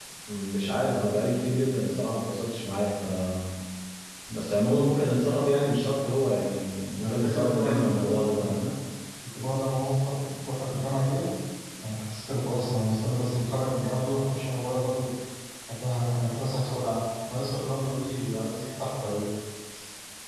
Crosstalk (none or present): present